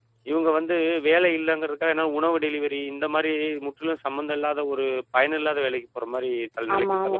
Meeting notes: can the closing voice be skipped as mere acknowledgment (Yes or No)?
No